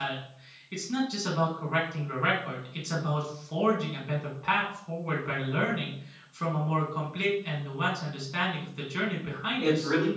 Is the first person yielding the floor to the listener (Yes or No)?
Yes